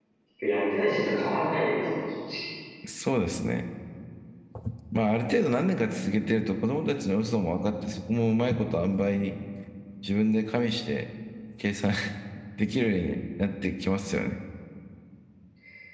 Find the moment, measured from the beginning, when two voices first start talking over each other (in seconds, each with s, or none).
none